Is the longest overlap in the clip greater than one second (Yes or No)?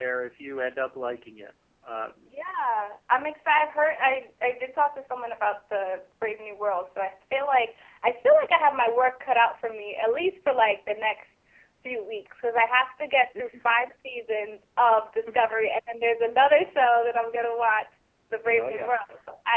No